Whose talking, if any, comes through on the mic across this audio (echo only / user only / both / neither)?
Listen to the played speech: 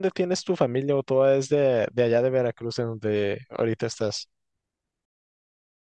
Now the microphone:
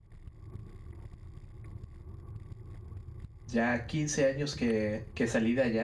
user only